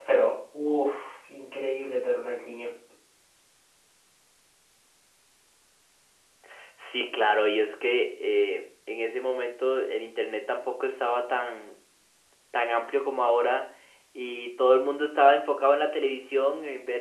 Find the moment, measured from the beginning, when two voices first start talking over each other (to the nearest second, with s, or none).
none